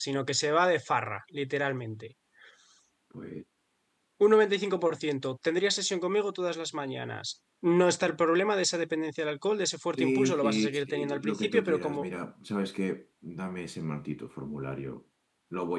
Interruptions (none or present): present